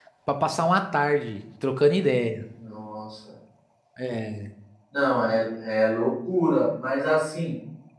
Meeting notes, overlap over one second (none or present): none